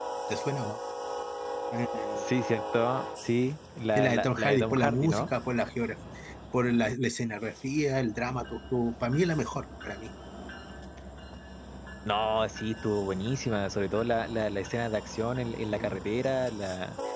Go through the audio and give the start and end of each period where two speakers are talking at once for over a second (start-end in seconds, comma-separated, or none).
4.0-5.3